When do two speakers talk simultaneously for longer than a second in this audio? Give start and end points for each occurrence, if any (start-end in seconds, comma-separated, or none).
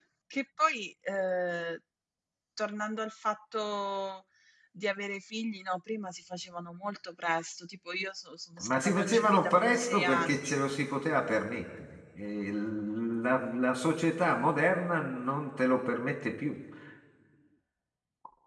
8.6-10.6